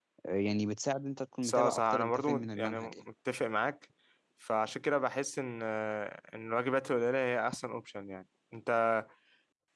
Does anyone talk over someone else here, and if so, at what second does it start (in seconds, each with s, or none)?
1.4 s